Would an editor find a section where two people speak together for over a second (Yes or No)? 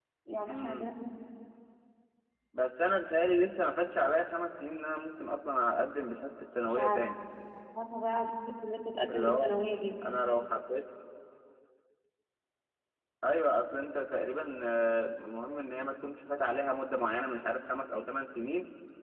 No